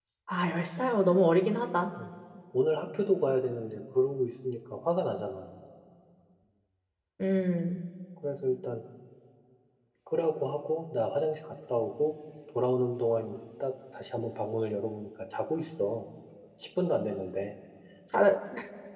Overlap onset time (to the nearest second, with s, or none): none